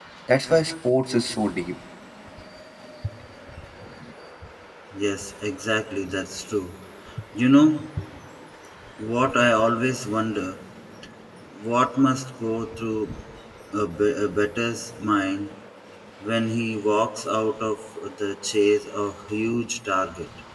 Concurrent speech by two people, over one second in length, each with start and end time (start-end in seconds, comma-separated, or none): none